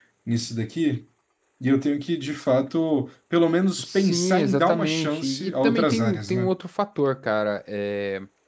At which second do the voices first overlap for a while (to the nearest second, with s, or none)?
4 s